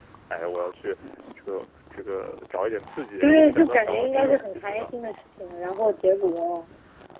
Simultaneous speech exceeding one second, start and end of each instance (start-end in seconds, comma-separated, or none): 3.2-4.9